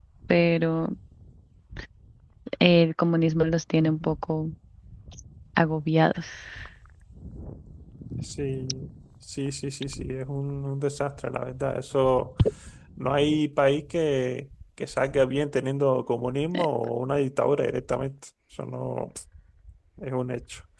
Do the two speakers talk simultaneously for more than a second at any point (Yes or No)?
No